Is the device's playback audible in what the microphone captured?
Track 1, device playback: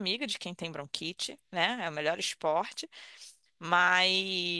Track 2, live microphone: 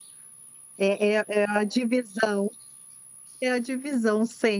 No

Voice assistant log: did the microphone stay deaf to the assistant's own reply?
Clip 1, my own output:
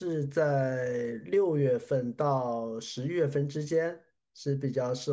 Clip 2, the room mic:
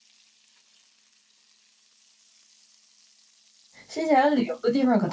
Yes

